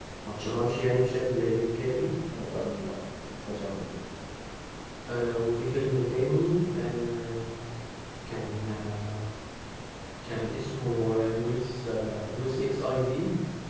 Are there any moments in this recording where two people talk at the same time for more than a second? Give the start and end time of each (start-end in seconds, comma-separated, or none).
none